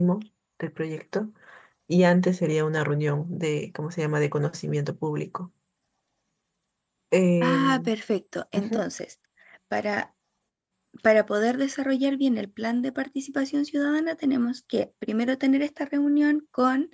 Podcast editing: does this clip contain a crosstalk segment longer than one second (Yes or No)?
No